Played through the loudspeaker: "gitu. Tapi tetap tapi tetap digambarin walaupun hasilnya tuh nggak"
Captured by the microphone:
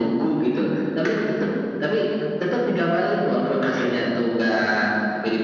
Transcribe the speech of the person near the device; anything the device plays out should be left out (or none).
none